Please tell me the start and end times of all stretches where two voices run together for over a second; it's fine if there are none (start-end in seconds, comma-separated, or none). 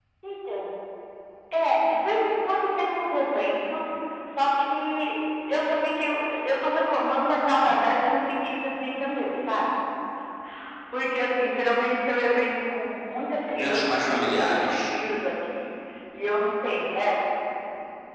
13.6-14.8